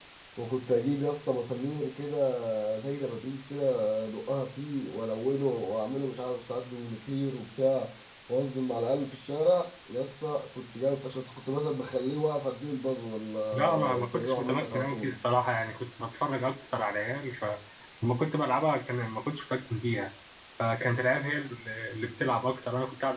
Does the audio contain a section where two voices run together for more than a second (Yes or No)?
Yes